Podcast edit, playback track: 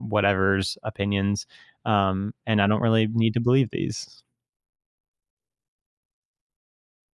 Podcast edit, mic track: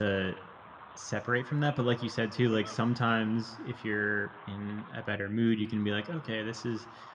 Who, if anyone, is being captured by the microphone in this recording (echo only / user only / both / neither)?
user only